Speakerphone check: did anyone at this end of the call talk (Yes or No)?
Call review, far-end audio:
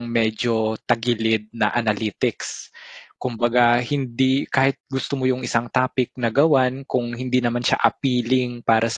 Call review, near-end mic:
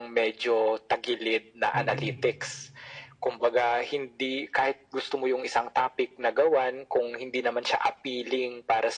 Yes